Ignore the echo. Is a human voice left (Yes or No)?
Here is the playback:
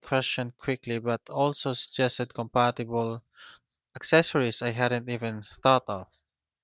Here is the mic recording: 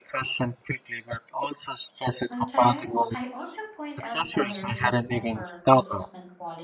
Yes